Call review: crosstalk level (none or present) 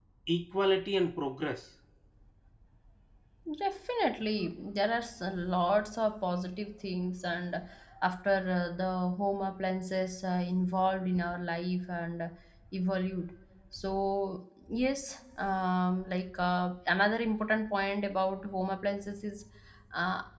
none